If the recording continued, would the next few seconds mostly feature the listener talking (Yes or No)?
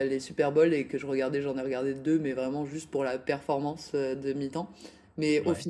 No